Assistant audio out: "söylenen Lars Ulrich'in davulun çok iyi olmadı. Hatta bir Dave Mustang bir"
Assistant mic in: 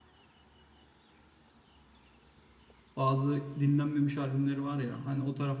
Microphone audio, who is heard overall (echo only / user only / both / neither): user only